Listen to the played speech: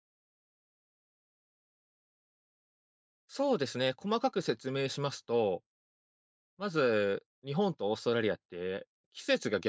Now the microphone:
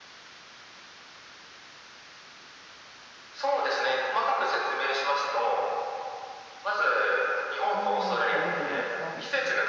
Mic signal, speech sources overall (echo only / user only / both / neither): both